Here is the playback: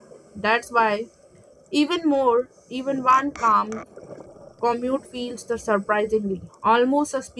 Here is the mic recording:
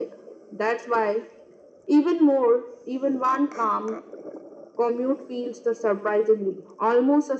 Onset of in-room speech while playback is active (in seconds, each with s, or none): none